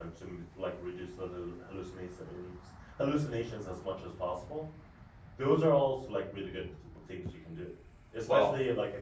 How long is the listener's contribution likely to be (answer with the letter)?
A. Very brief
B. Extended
A